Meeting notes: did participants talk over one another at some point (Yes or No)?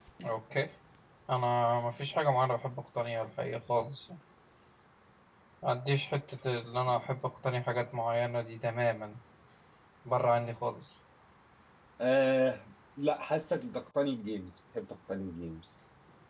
No